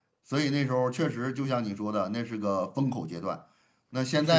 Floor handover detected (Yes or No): No